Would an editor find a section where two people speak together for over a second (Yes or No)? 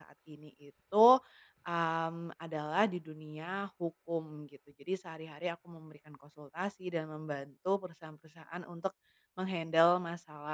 No